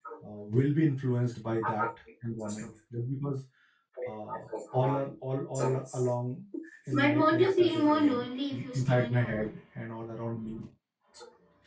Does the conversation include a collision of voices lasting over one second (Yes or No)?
Yes